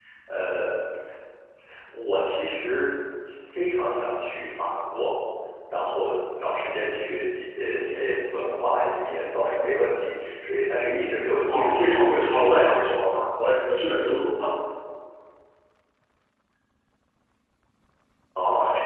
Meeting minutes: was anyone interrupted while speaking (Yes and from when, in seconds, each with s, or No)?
Yes, from 11.4 s